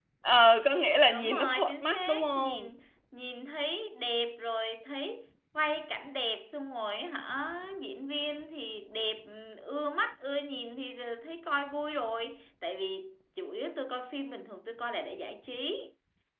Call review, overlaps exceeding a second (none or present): present